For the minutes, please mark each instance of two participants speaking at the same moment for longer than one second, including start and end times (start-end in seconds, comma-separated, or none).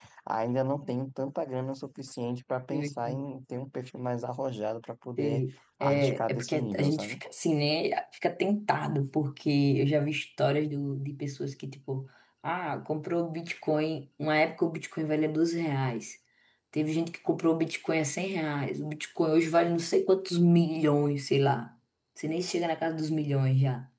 5.8-7.2